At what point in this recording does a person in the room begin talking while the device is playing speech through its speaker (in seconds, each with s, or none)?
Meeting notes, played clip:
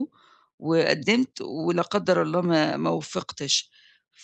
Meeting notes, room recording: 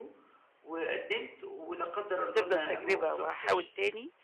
2.2 s